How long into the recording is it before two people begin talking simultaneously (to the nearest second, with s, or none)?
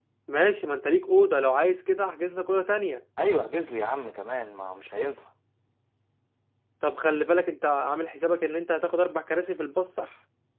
none